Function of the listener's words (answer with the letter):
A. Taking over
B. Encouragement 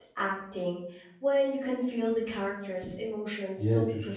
A